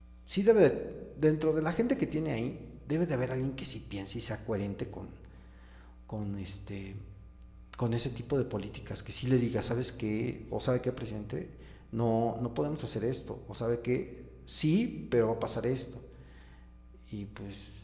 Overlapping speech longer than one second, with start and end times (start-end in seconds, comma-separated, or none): none